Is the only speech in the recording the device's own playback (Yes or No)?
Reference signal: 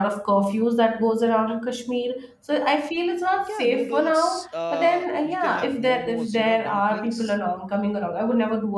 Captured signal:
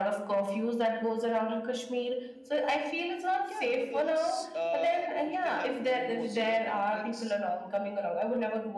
Yes